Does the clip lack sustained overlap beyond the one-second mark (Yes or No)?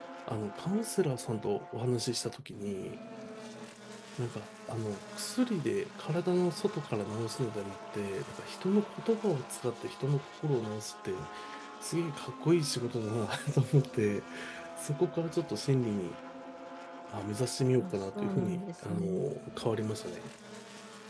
No